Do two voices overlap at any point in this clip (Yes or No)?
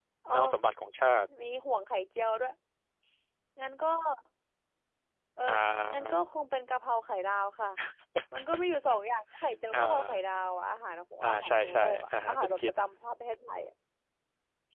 Yes